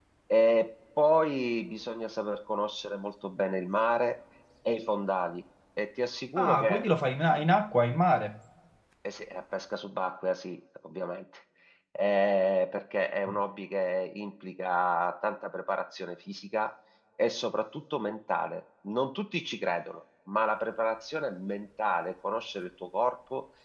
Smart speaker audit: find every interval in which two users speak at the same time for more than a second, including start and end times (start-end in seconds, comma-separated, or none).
none